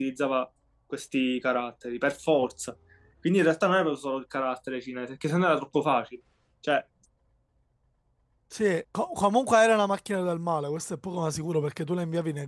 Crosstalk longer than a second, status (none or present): none